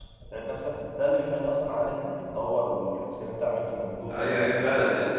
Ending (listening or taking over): taking over